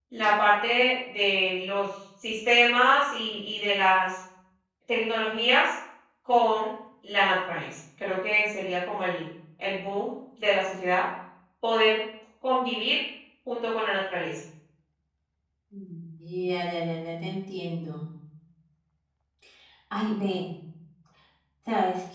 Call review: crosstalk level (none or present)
none